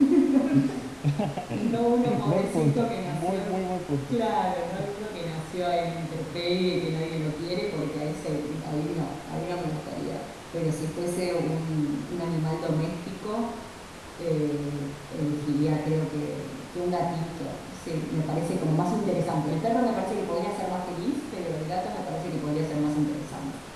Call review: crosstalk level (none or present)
present